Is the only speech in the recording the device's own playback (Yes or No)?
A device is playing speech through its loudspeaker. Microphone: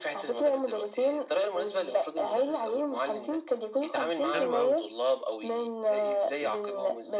No